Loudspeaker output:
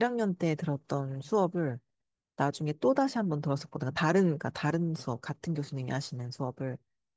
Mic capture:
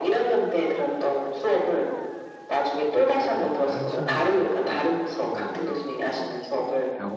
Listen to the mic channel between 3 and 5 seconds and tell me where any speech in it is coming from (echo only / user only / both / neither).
both